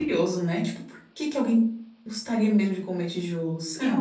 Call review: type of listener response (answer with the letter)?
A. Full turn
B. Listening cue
A